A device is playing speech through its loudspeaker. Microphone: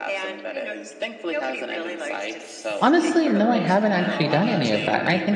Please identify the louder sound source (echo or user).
user